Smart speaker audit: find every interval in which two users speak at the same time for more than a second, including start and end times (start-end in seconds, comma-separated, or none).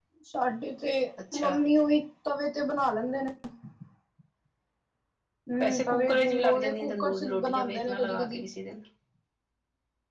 5.6-8.4